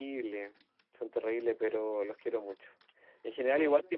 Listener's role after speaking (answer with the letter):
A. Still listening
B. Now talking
A